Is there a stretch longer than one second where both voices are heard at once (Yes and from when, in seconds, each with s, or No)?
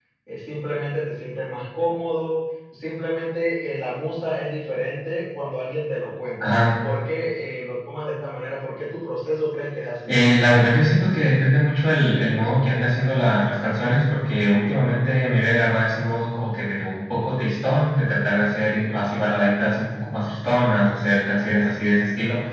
No